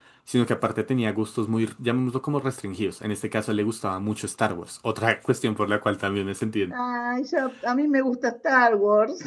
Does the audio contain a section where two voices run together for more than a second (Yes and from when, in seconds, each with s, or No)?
No